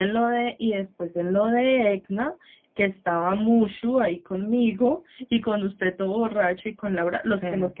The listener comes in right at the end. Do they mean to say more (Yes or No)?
No